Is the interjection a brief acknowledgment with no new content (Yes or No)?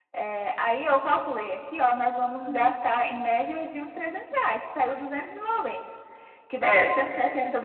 Yes